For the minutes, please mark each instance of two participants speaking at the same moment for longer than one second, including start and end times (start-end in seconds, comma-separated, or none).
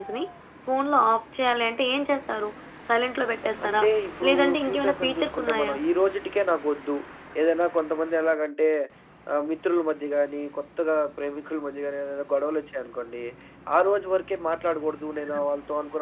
4.3-5.7